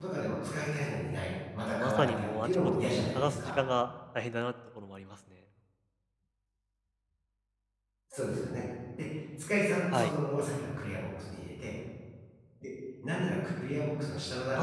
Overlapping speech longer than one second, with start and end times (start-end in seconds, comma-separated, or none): 1.7-3.6